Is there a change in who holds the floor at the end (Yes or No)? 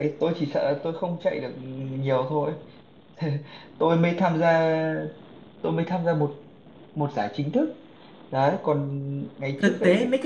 Yes